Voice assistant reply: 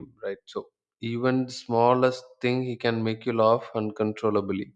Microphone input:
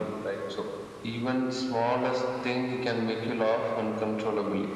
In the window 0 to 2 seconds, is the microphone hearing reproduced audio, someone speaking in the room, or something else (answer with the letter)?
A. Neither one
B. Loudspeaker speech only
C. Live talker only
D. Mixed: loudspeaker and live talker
B